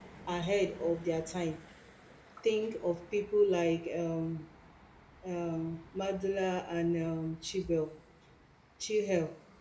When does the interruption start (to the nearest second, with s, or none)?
none